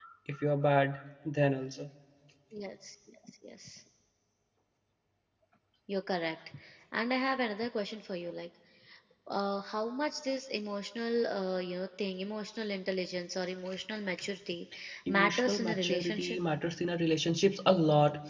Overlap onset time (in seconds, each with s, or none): 15.1 s